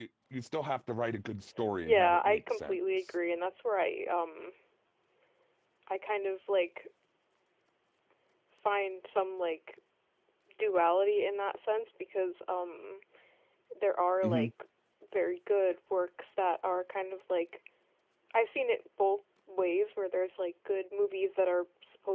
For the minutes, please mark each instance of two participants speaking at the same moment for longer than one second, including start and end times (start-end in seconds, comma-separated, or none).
1.8-3.1